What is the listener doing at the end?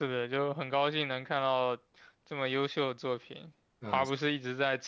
listening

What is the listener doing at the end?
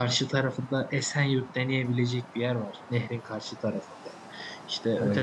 listening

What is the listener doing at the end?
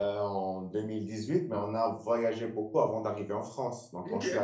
listening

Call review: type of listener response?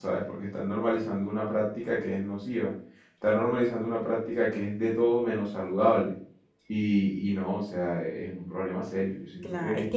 taking over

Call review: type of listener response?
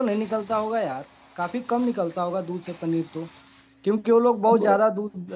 listening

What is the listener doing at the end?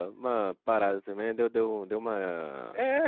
taking over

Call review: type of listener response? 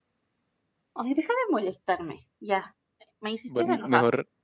taking over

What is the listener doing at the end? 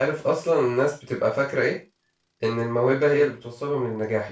listening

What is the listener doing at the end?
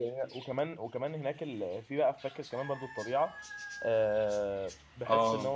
listening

